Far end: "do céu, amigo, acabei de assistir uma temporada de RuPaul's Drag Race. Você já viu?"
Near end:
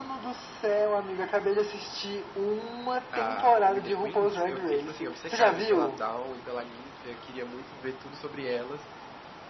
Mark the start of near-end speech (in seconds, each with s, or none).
3.1 s